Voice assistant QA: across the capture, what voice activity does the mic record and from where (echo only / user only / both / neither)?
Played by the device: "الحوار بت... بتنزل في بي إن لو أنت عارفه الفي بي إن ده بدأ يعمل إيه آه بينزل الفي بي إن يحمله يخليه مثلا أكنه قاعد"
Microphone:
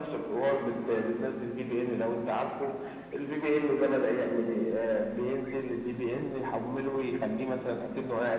echo only